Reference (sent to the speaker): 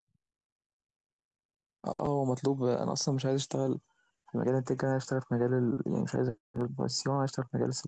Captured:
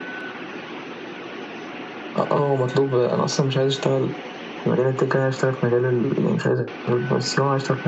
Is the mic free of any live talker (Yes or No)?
Yes